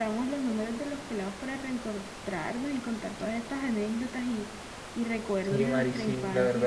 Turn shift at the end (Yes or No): Yes